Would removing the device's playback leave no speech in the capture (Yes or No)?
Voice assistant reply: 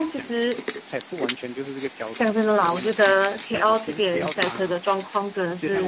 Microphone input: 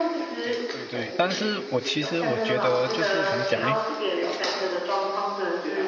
No